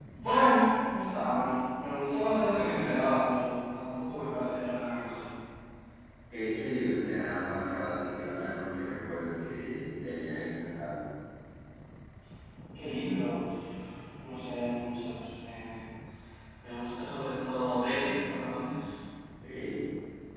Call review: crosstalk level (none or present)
none